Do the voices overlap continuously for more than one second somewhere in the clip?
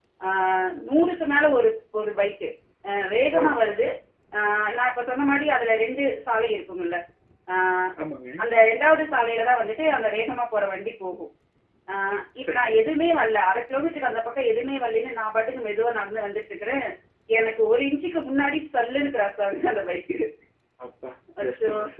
No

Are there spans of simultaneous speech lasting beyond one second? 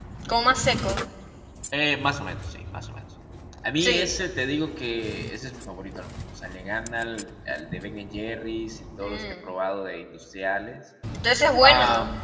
No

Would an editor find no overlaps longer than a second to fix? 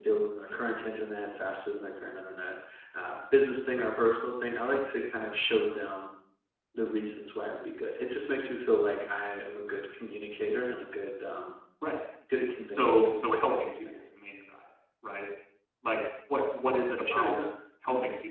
No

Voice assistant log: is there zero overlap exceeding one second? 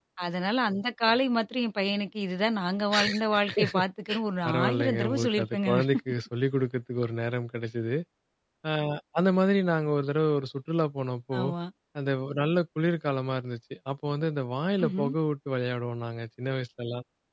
No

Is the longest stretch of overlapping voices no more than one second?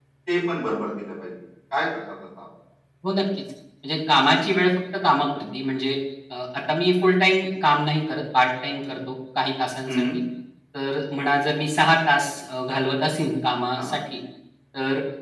Yes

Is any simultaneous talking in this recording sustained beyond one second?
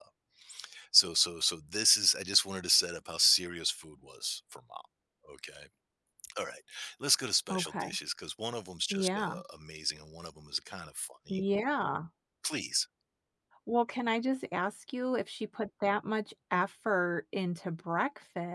No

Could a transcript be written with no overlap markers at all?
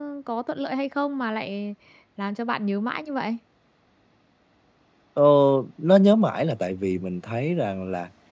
Yes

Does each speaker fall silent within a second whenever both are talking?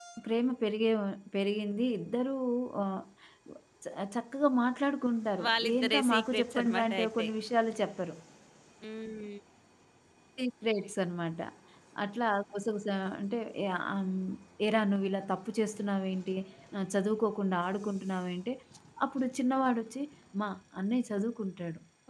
No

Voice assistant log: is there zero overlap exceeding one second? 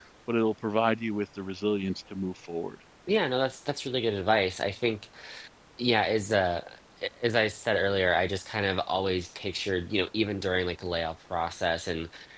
Yes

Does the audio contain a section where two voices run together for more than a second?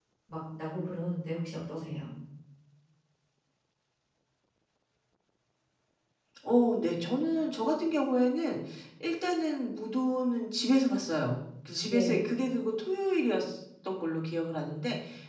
No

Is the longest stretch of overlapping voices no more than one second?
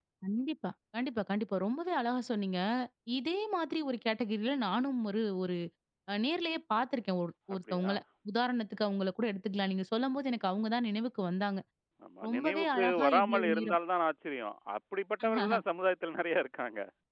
No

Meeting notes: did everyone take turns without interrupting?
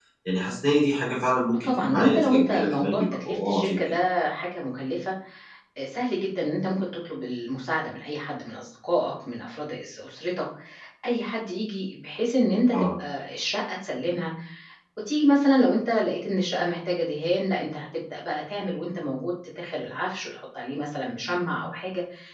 No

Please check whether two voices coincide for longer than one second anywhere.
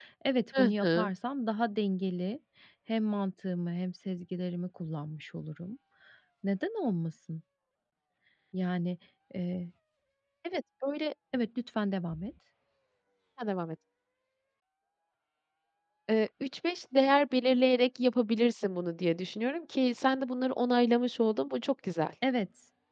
No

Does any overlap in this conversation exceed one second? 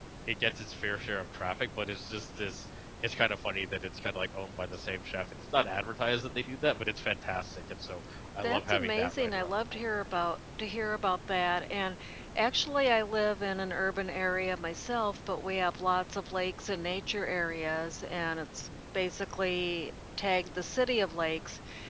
Yes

